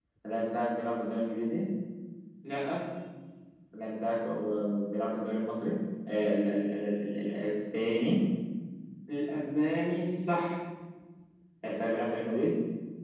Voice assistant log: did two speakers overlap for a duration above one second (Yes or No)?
No